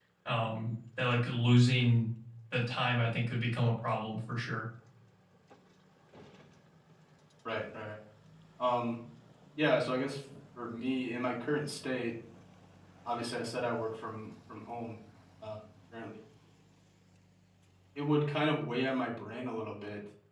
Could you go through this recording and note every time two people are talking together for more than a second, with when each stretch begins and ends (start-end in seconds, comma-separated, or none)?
none